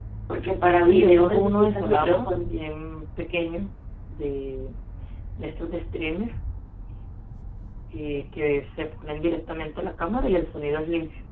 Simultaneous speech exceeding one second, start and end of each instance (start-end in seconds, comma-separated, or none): 0.8-2.5